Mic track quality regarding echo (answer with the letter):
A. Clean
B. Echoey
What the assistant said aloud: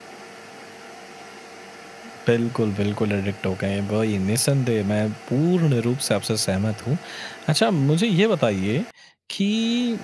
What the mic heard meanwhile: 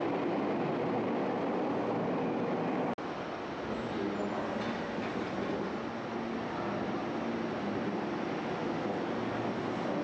A